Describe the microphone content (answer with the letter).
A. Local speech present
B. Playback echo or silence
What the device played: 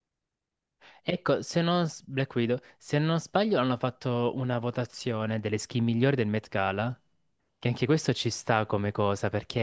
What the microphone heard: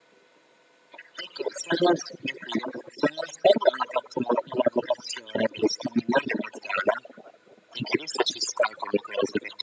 B